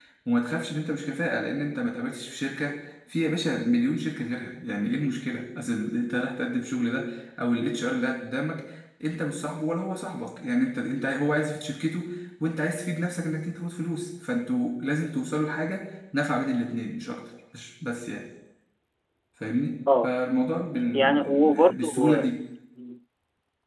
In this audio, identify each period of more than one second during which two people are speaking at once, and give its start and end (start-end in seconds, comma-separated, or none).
20.9-22.2